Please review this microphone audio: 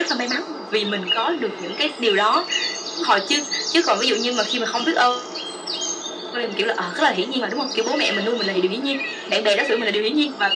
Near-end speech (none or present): none